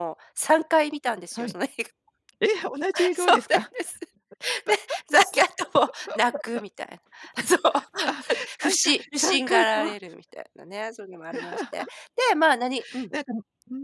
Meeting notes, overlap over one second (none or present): present